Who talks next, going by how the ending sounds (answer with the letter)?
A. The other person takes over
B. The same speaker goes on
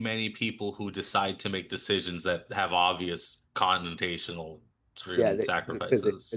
A